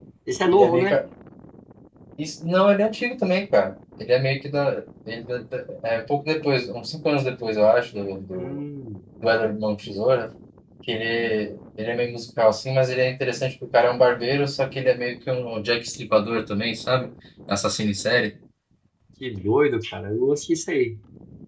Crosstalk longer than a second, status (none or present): none